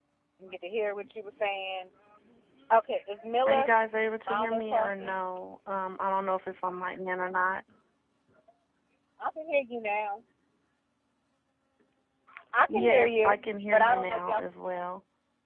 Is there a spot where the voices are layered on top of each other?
Yes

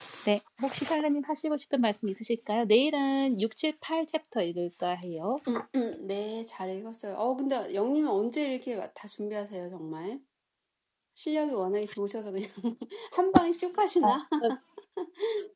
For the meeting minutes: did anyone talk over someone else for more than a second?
No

